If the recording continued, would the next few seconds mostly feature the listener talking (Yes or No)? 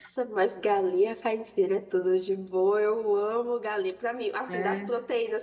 No